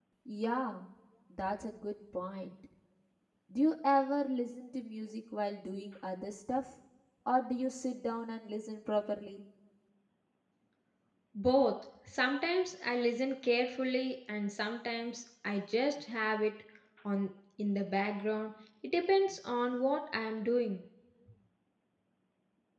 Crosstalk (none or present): none